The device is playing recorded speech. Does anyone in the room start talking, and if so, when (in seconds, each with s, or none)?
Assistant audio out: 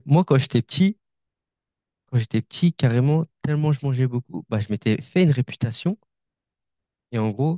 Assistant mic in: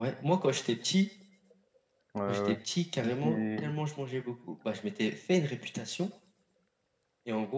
2.1 s